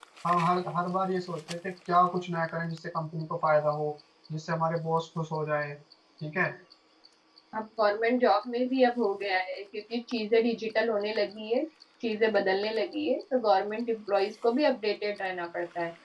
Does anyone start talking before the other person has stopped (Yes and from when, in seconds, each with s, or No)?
No